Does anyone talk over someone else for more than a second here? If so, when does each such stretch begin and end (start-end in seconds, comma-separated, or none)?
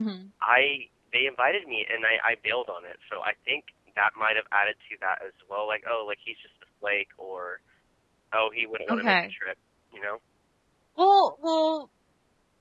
none